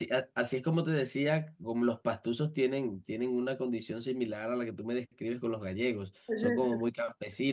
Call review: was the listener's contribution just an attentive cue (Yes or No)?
Yes